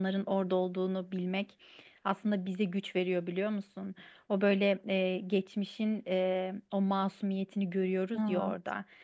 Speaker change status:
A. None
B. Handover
A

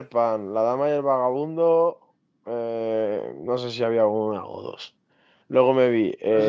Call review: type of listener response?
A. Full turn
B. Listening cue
B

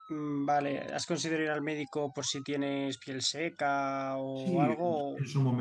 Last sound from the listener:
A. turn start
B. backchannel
A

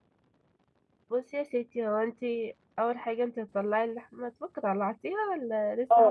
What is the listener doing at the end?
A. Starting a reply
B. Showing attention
A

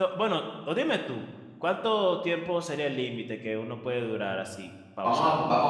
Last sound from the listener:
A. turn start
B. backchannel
A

